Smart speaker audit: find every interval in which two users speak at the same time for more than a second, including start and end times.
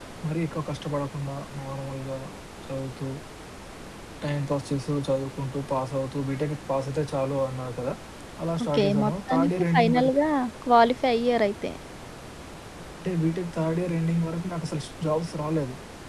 8.6-10.2

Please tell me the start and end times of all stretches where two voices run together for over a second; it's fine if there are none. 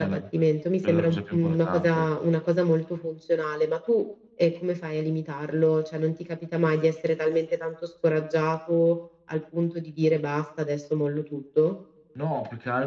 0.8-2.1

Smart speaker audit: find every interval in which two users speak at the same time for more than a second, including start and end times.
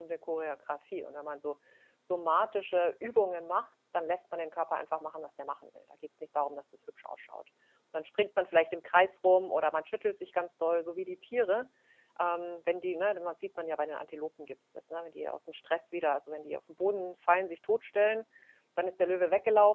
none

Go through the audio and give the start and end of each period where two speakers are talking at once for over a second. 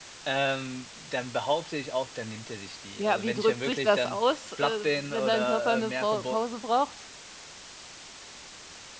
3.0-6.4

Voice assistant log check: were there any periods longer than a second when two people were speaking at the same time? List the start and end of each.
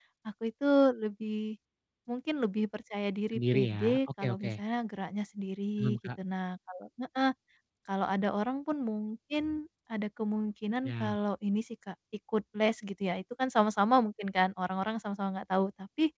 3.3-4.6

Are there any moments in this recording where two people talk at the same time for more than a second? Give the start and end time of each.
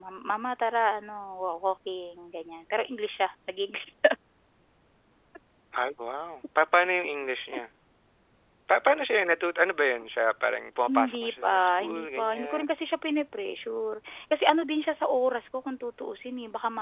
10.8-12.7

